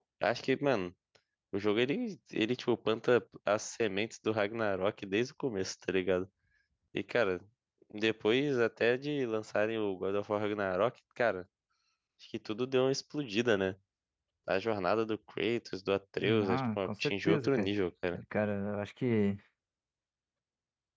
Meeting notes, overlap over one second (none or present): present